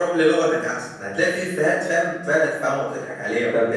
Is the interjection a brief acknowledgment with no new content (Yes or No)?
No